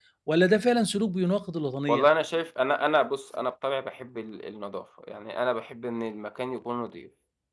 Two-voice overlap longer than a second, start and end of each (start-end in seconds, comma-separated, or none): none